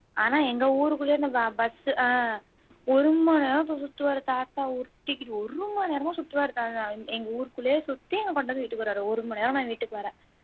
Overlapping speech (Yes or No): No